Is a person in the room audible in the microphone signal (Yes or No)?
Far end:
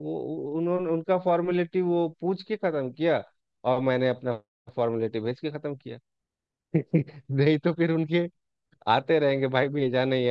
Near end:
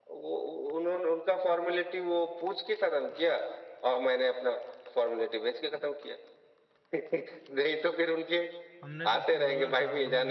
Yes